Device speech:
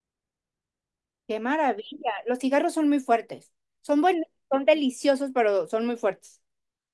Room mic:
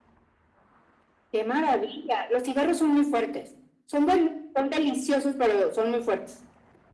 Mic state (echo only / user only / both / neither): echo only